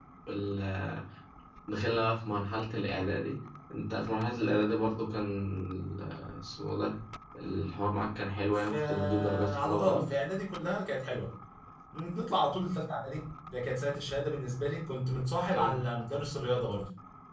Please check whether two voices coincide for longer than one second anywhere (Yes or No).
Yes